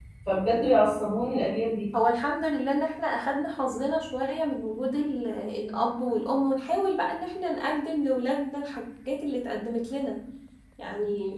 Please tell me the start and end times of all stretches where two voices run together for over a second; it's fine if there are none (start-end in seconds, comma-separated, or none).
none